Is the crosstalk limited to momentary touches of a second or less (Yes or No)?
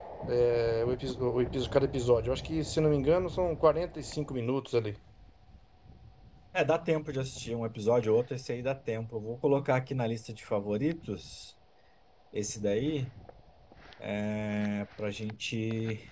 Yes